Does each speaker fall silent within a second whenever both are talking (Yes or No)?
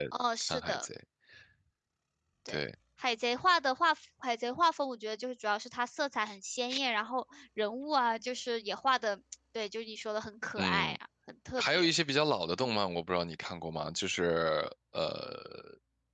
Yes